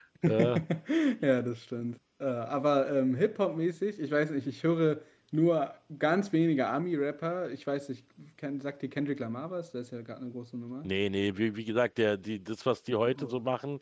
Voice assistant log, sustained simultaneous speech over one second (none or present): none